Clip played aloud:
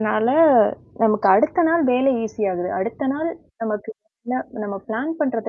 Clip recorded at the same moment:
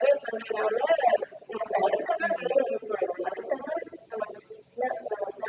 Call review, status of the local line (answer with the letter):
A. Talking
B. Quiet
A